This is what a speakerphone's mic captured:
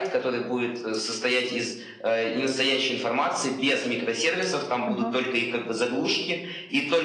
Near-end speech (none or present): present